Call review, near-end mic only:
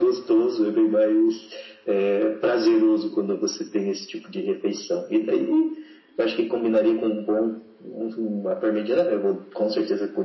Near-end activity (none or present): none